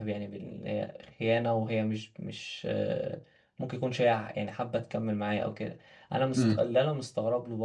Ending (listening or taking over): listening